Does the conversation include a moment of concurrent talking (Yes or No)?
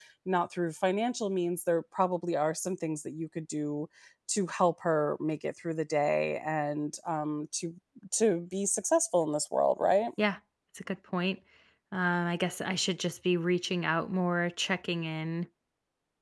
No